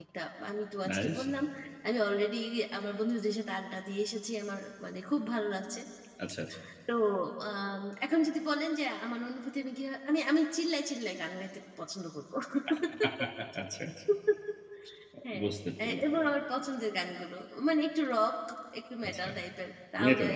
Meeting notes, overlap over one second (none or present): none